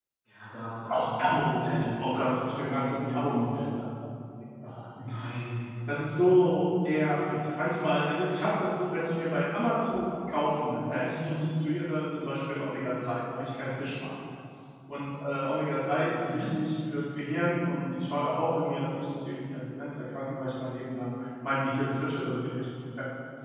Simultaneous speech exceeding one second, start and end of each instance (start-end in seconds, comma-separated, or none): 0.9-3.2